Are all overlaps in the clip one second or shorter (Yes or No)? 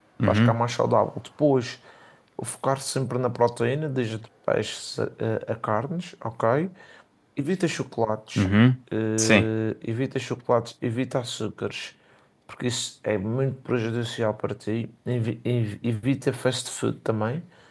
Yes